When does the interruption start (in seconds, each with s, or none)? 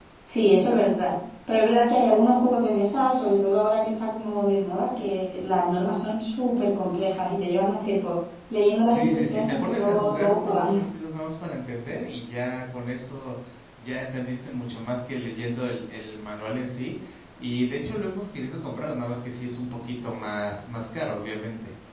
8.8 s